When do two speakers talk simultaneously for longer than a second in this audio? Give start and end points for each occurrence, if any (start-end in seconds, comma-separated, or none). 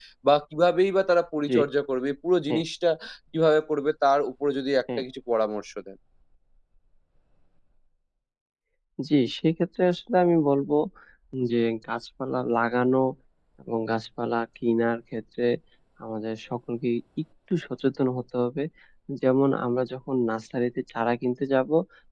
none